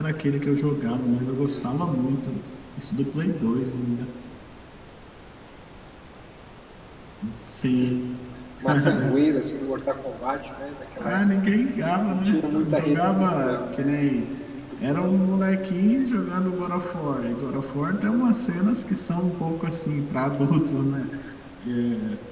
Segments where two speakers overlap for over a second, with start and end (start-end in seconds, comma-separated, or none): 12.1-14.0